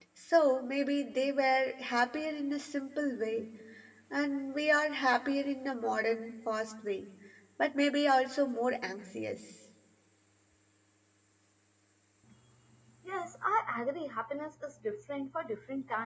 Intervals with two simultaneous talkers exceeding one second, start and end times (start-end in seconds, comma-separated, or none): none